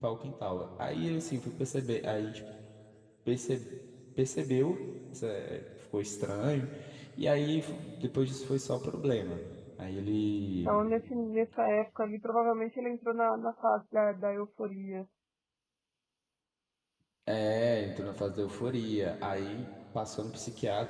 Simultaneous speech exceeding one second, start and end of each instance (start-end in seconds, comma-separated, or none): none